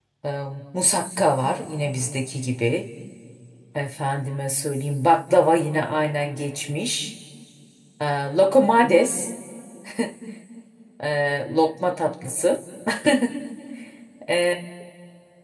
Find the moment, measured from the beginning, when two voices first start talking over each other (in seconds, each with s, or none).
none